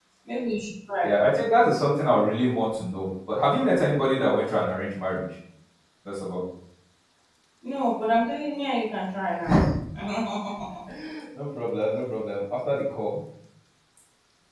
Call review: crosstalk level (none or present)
none